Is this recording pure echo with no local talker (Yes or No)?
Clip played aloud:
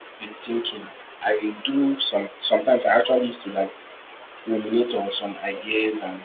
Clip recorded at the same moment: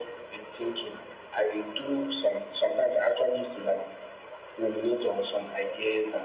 Yes